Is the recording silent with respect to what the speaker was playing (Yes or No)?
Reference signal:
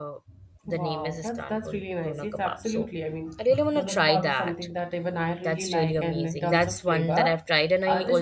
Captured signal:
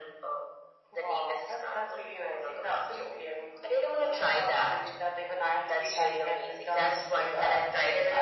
No